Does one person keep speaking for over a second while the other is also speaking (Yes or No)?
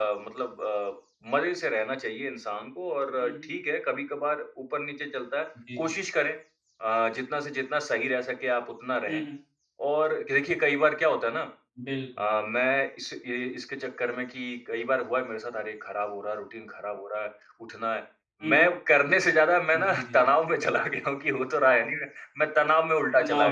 No